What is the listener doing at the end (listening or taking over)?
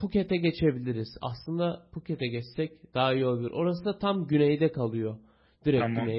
taking over